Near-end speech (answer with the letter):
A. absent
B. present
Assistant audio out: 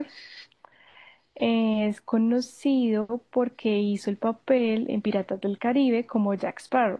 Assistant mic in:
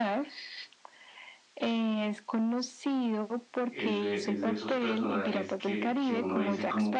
B